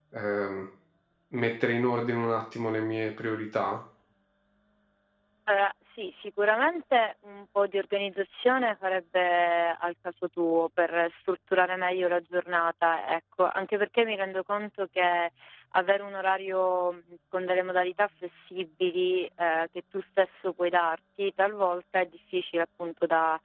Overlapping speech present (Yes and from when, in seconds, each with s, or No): No